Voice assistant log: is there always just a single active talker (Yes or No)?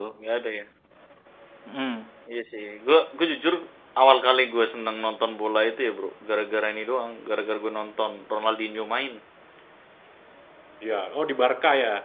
Yes